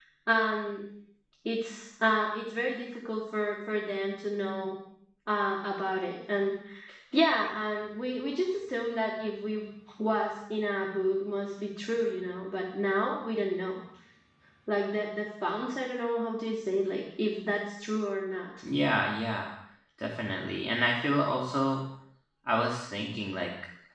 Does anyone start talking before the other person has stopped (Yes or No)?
No